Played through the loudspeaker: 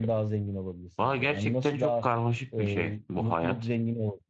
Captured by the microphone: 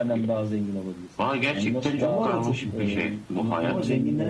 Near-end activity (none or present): present